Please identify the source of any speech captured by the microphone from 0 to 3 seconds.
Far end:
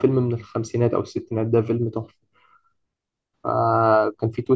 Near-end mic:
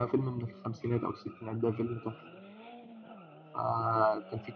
echo only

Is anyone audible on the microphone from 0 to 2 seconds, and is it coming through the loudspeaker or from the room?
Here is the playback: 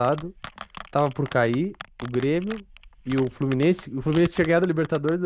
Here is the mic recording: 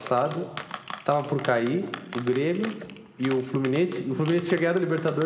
echo only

